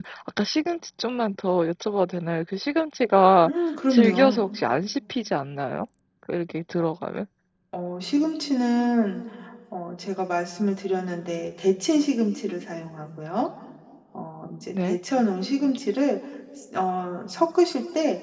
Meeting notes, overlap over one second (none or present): none